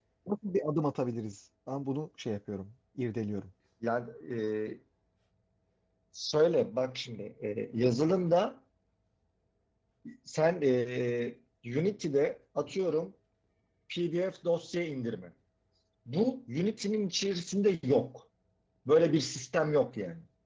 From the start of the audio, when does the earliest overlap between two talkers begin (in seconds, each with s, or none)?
none